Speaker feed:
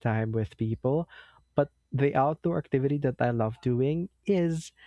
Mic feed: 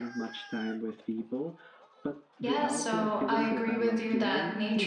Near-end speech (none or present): present